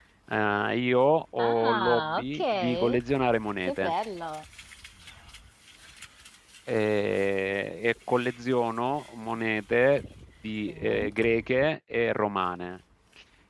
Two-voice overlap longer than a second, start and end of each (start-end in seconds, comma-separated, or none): 1.4-3.0